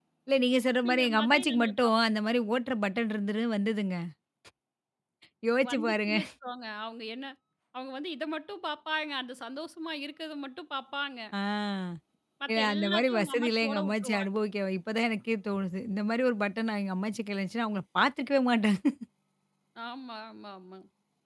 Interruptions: present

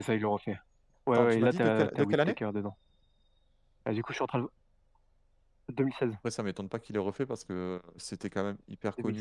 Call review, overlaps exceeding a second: present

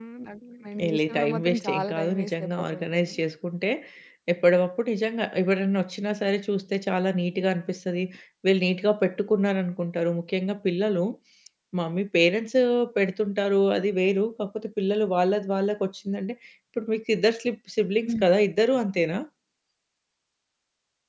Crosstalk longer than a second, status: present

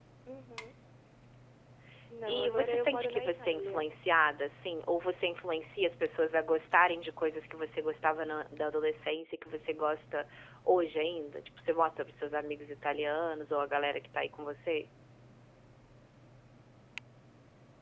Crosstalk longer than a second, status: present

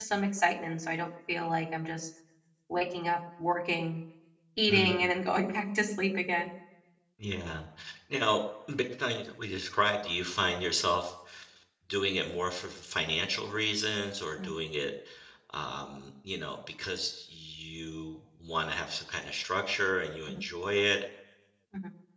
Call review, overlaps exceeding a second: none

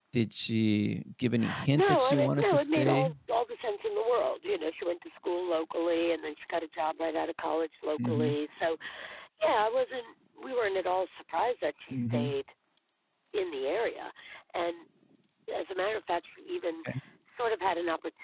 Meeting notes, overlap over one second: present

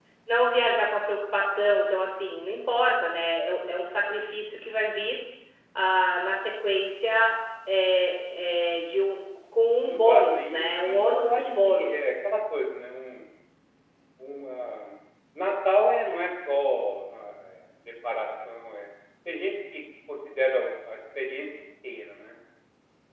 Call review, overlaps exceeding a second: present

